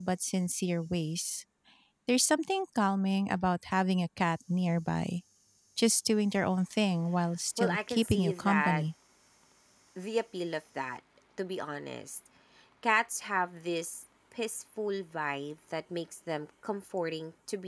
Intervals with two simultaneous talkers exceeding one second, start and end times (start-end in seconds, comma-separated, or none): 7.6-8.8